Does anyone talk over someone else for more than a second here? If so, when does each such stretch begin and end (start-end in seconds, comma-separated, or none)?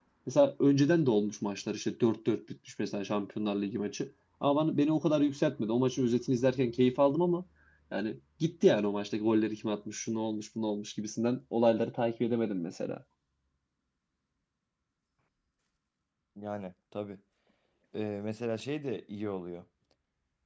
none